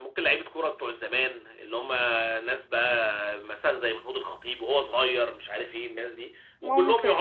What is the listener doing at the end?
listening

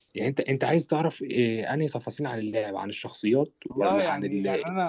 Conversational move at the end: taking over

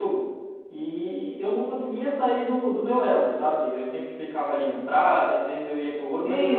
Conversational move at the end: taking over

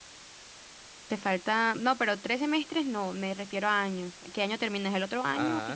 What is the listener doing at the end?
taking over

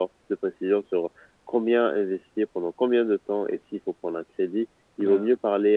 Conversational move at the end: listening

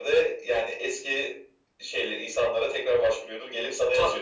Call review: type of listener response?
taking over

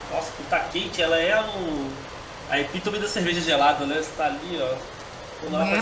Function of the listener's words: taking over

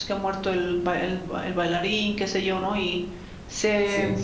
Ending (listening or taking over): listening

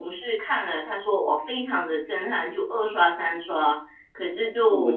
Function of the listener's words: taking over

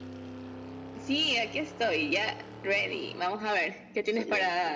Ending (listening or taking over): taking over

